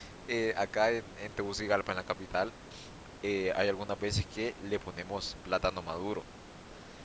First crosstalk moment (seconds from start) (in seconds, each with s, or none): none